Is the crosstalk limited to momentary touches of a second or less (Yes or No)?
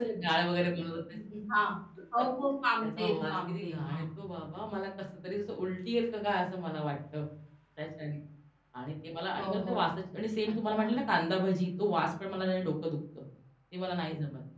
No